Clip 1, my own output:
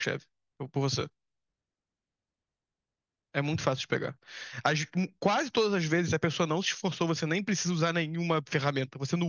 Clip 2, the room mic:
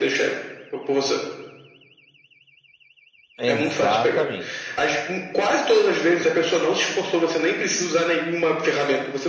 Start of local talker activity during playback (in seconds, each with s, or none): 3.4 s